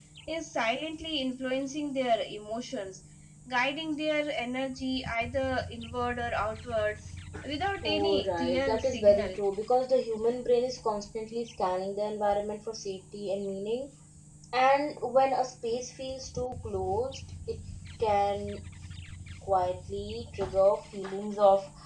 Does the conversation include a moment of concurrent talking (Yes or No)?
Yes